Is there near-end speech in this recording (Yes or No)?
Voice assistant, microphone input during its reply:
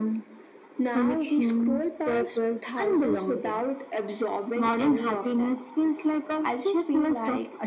No